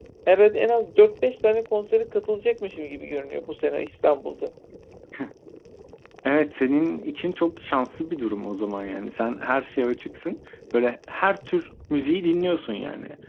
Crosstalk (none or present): none